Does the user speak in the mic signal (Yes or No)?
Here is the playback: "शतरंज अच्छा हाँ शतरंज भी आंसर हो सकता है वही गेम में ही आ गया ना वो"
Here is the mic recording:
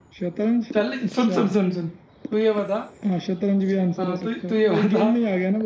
Yes